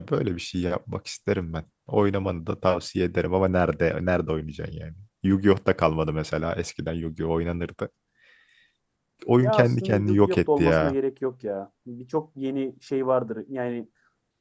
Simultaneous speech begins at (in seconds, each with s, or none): 9.4 s